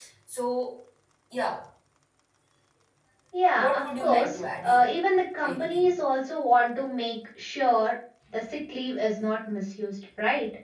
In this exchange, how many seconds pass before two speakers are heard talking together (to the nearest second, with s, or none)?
4 s